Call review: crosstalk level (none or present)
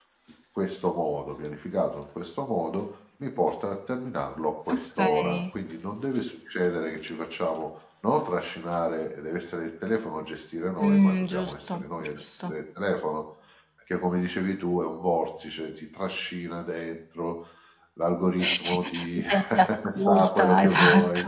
present